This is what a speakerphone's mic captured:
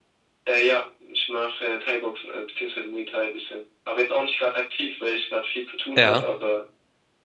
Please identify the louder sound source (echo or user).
user